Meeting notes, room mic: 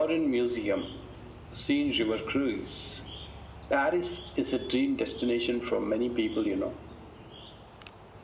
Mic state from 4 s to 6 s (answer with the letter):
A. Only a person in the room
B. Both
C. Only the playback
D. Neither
C